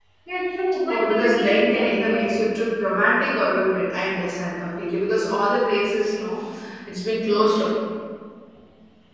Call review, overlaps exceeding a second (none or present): present